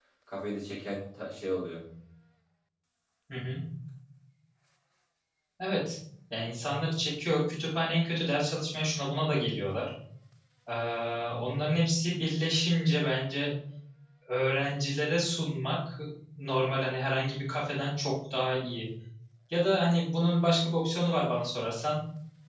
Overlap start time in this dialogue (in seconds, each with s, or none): none